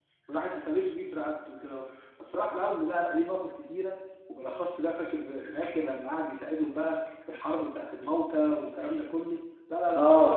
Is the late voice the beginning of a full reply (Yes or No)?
Yes